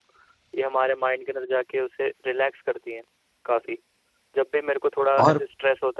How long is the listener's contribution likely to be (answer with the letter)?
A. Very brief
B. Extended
A